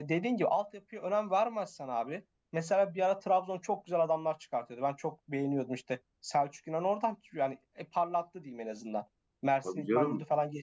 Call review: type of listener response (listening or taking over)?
listening